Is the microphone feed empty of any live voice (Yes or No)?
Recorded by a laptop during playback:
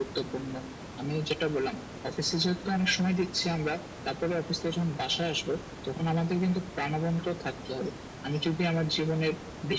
Yes